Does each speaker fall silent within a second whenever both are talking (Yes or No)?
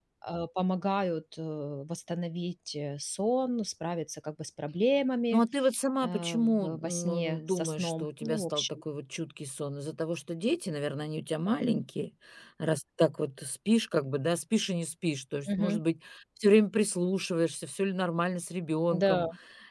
No